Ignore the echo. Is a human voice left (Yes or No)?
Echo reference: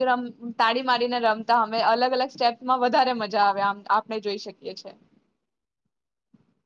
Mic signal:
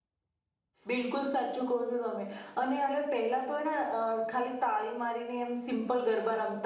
Yes